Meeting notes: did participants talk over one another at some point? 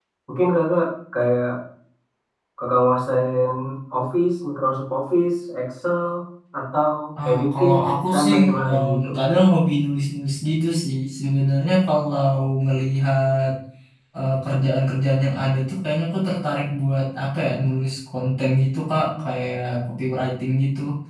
Yes, from 7.3 s

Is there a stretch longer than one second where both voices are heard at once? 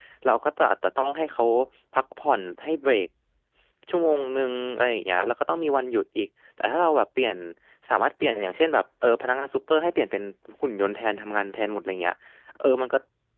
No

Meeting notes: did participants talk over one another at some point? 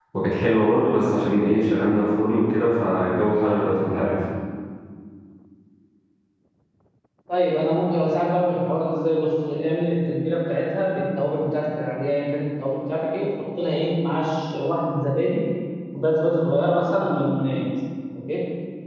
No

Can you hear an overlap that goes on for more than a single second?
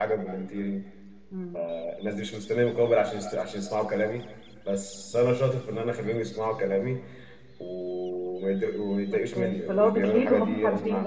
Yes, from 9.1 s

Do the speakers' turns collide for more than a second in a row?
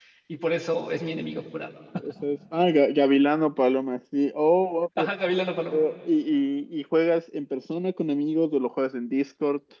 No

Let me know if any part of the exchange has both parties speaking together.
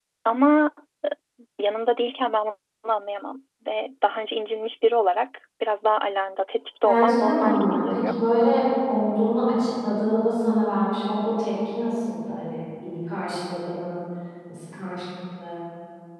Yes, from 6.8 s

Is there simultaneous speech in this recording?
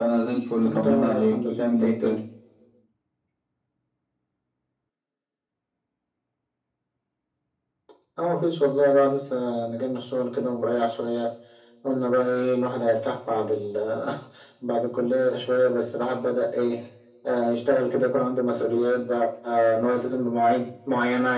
Yes, from 0.6 s

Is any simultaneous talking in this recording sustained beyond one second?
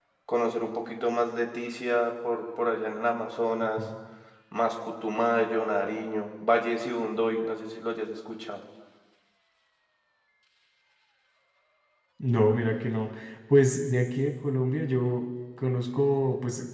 No

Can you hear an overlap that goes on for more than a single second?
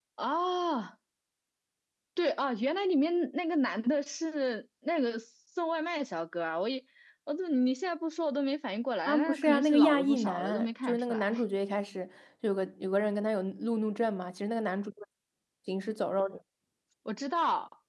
Yes, from 9.1 s

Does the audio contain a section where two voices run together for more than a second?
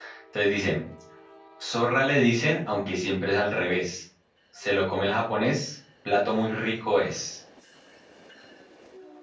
No

